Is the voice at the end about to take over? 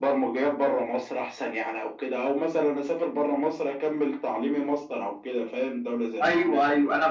Yes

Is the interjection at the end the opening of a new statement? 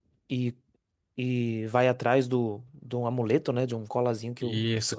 Yes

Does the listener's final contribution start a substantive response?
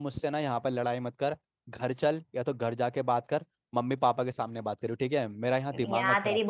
Yes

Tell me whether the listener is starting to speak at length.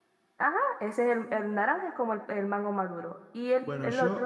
Yes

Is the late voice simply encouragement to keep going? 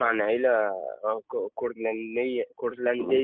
No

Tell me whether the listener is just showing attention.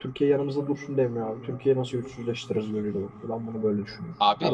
No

